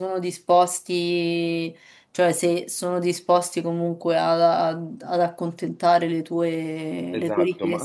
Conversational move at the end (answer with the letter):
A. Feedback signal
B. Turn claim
B